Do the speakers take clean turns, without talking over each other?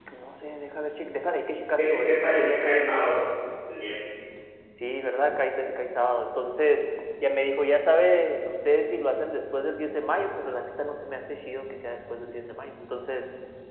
No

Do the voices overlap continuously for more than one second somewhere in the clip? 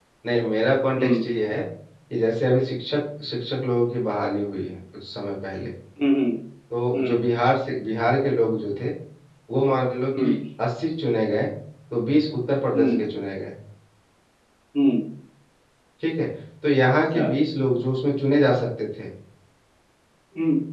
No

